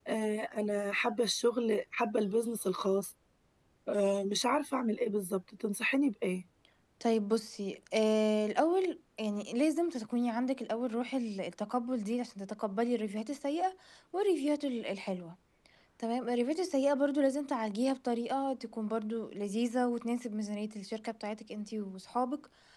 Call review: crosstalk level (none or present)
none